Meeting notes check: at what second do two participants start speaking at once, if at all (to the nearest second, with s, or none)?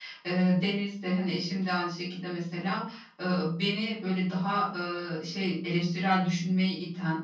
none